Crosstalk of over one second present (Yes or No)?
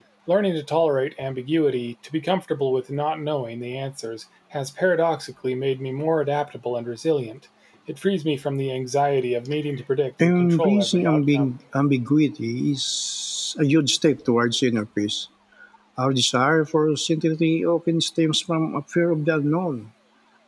Yes